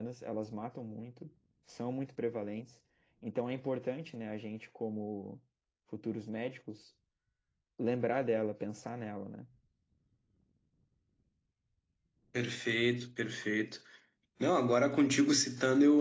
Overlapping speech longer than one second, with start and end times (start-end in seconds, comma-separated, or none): none